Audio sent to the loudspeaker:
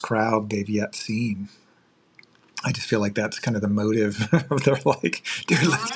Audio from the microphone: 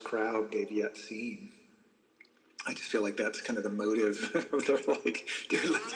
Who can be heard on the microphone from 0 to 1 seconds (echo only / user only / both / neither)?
echo only